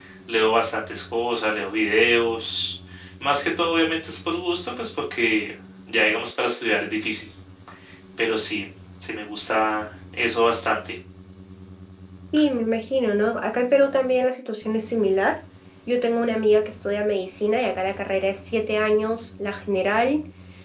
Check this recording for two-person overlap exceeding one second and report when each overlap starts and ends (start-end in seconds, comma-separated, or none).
none